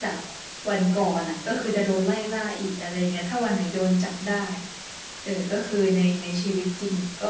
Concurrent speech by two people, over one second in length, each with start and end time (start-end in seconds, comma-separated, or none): none